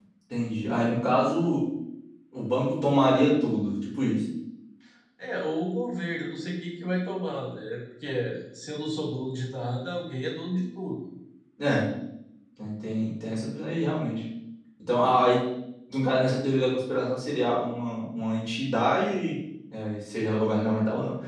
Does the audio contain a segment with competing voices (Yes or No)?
No